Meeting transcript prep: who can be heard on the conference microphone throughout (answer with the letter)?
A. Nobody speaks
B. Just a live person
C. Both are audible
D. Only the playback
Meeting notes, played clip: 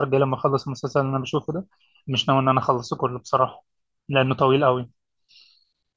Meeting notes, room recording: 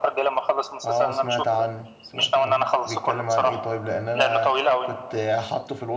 C